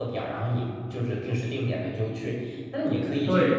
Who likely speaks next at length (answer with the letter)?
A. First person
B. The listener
A